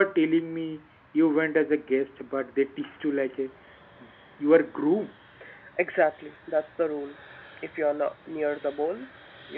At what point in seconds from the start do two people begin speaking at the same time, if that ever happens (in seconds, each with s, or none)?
none